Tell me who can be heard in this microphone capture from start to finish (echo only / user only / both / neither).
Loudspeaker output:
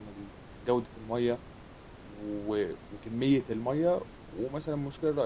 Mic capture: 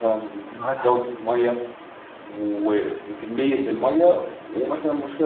both